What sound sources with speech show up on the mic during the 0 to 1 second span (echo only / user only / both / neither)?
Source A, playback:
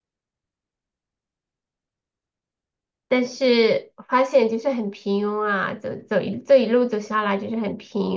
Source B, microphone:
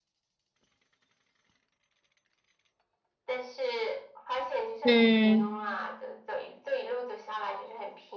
neither